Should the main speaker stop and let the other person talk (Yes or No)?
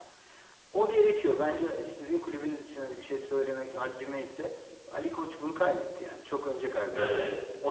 No